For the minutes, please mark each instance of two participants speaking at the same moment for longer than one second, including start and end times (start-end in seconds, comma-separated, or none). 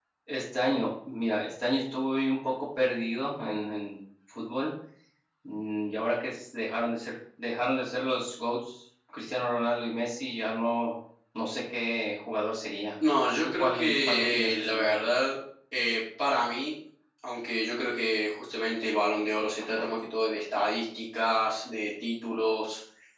13.4-15.0